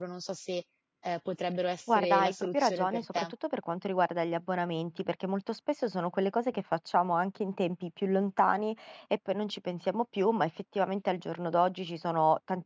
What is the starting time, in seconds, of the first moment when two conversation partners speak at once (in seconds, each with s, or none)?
1.9 s